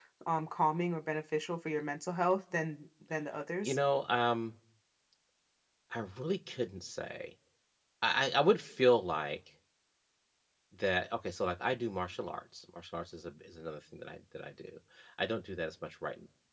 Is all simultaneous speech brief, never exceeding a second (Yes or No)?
Yes